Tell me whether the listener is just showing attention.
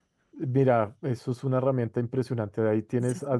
Yes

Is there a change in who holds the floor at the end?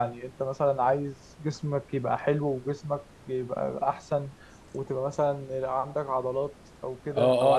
Yes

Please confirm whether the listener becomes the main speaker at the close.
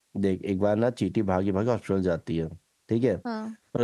No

